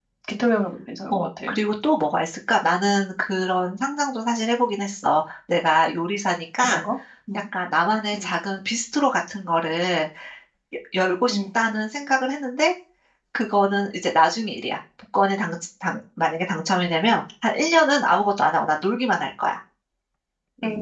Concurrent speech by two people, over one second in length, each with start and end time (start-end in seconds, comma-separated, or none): none